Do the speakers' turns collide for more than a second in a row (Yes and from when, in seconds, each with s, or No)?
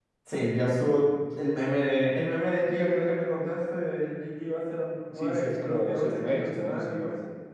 Yes, from 5.2 s